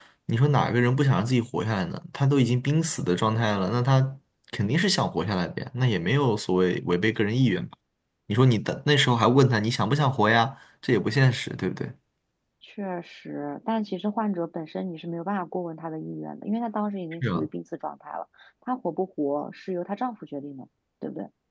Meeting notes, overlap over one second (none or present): none